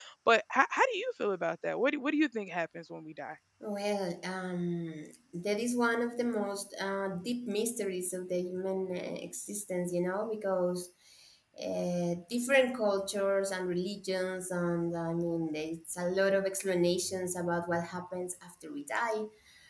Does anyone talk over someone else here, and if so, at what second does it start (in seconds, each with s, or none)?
none